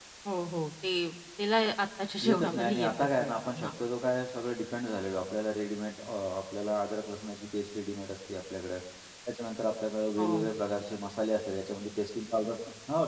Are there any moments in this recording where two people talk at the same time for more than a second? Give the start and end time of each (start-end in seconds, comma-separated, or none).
2.2-3.7